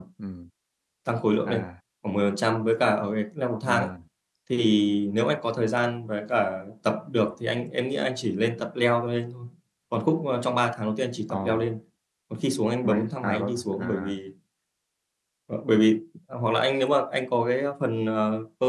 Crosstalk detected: Yes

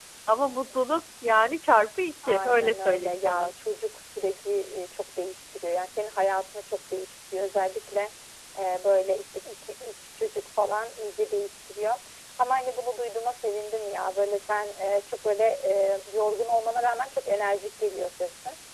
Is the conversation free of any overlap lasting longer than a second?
No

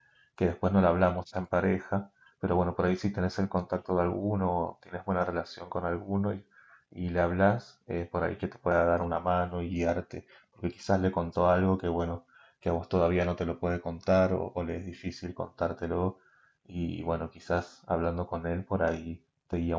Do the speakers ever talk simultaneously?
No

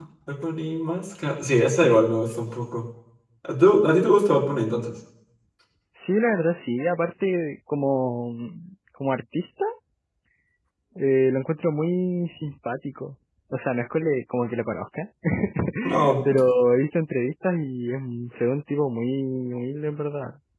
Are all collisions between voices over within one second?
Yes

